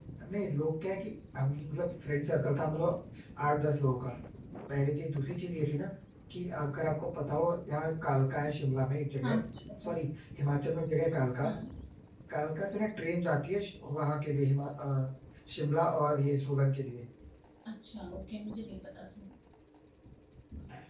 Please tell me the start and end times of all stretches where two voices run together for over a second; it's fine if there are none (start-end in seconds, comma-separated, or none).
none